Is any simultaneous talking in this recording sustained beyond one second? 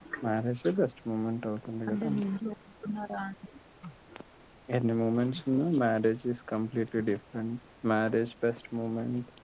No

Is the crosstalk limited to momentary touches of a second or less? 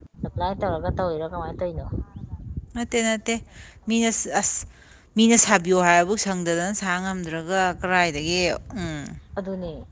Yes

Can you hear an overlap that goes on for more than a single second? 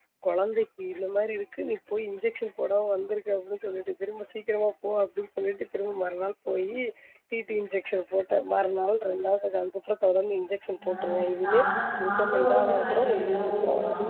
Yes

